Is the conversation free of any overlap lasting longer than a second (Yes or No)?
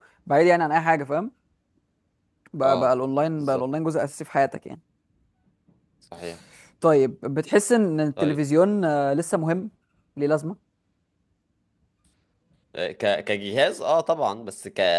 Yes